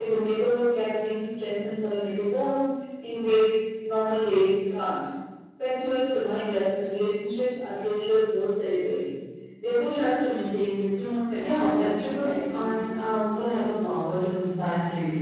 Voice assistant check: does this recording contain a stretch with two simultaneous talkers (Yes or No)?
Yes